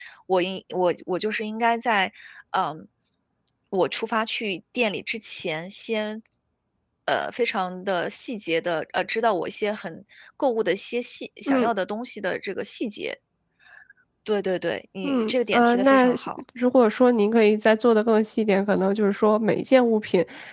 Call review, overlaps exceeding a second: present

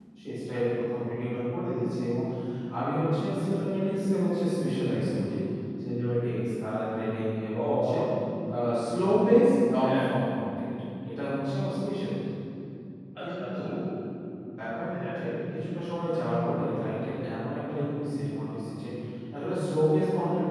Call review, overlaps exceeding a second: none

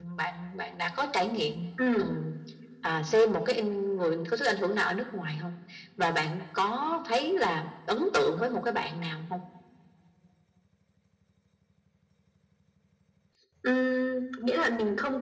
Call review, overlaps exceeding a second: none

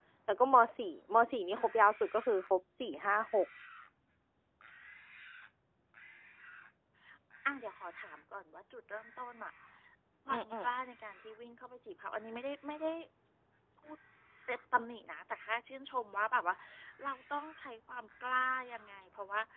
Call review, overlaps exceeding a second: none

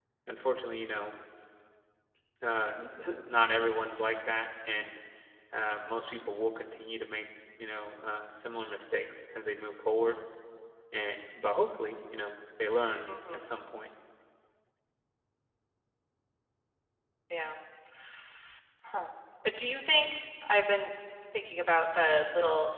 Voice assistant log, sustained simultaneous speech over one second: none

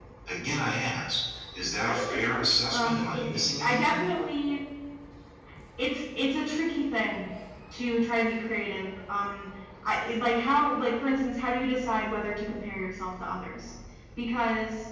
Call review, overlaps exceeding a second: present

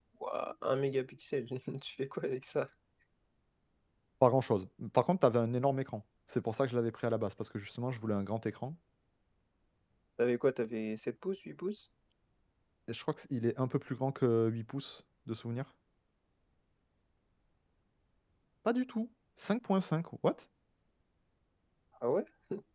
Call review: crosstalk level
none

